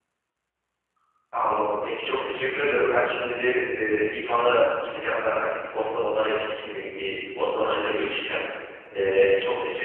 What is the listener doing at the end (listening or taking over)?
listening